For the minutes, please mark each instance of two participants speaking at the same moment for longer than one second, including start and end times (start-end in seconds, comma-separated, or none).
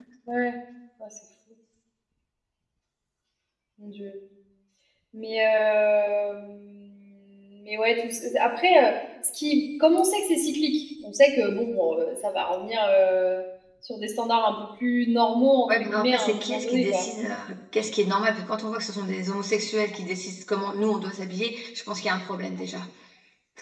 15.8-17.1